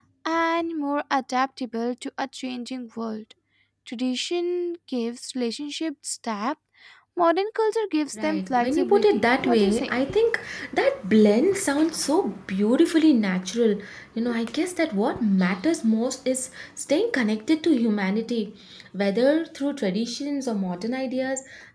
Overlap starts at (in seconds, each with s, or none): 8.1 s